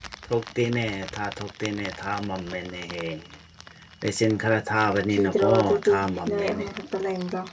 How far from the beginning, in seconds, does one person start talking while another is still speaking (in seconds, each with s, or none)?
5.2 s